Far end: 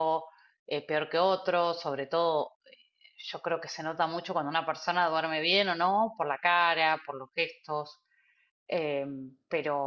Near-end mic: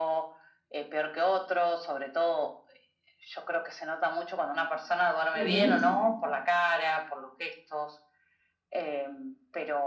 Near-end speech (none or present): present